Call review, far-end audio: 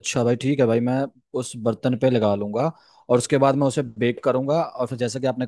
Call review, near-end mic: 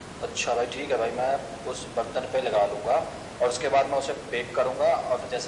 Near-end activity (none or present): none